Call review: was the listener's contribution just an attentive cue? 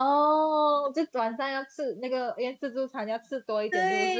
No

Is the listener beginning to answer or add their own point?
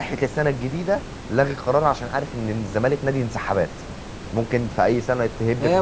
Yes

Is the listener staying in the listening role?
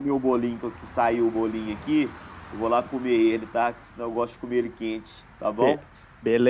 No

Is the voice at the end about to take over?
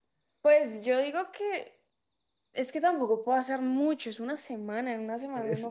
Yes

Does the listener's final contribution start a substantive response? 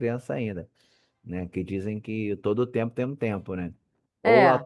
No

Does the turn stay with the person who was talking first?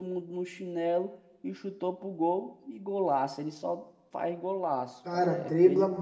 No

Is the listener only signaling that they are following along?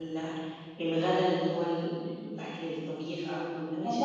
No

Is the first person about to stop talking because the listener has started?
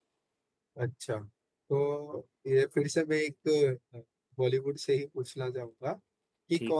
No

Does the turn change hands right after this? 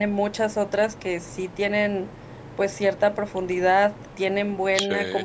No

